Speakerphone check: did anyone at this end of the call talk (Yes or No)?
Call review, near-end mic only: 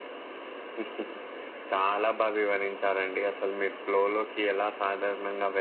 No